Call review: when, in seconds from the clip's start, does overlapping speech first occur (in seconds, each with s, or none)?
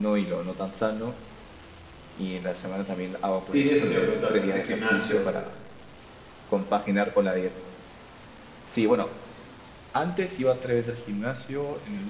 3.5 s